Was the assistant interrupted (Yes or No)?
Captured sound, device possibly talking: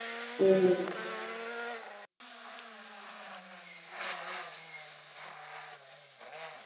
Yes